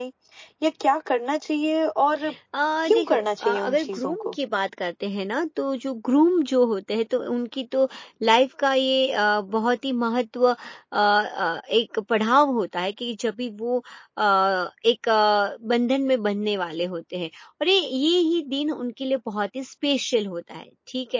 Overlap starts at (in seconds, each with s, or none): 2.9 s